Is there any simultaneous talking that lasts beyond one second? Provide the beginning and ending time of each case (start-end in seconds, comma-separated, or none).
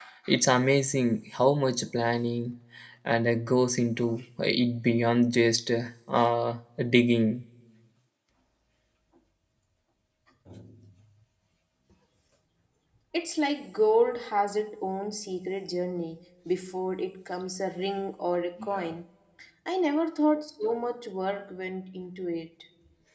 none